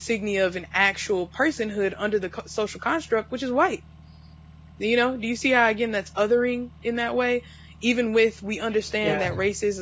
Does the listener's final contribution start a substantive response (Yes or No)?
No